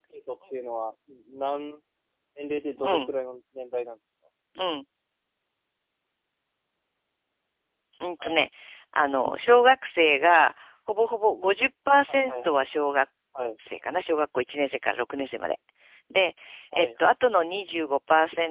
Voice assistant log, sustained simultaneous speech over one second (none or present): none